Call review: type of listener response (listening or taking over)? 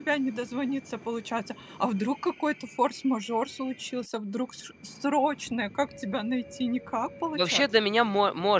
taking over